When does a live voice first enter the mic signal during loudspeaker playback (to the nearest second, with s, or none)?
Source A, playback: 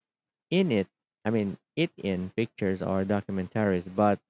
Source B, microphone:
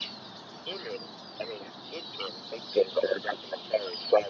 none